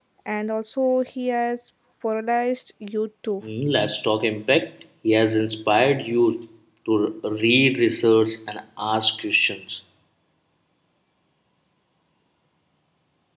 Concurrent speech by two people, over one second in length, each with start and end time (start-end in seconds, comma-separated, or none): none